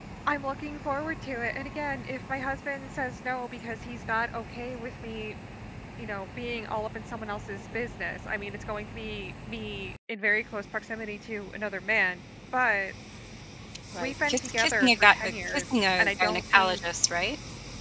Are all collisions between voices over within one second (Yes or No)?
No